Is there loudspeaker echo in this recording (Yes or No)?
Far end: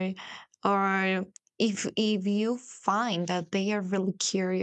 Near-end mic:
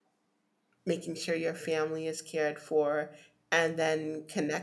No